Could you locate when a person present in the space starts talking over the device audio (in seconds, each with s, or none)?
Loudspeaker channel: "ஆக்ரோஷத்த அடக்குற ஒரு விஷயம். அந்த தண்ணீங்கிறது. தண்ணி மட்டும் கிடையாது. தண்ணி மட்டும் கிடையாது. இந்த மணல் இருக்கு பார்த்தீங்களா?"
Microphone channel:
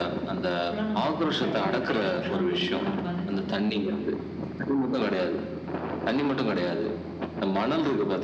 0.6 s